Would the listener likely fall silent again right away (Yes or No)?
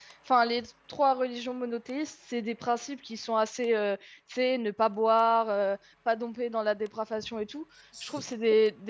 Yes